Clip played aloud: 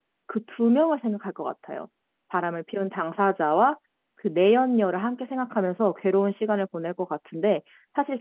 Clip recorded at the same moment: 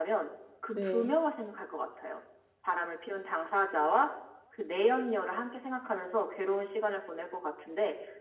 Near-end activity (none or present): present